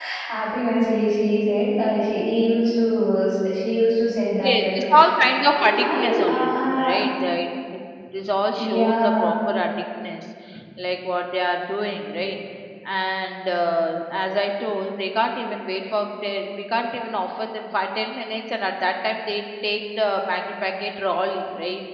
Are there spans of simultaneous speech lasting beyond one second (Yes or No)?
Yes